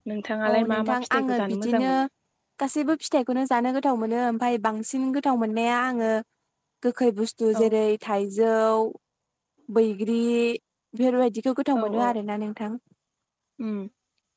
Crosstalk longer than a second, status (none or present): present